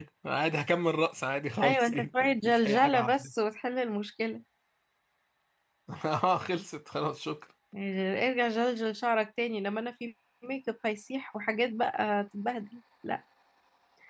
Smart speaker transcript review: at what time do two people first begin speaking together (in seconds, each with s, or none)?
1.6 s